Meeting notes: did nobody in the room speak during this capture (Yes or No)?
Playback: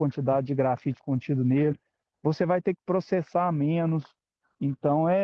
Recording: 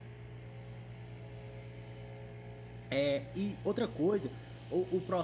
No